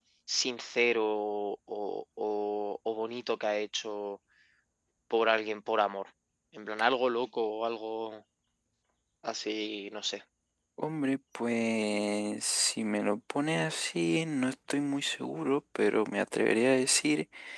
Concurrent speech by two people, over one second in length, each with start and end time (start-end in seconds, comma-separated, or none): none